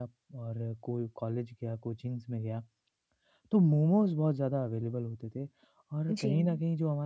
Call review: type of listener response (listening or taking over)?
listening